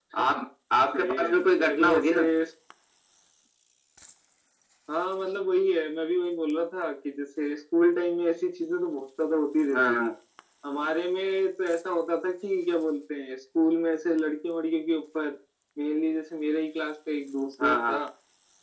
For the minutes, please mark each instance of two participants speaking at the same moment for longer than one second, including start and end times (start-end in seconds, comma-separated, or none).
1.0-2.2